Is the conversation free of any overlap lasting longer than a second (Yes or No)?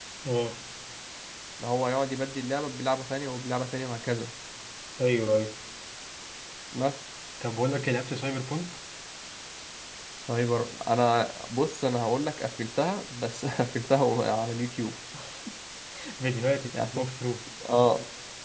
Yes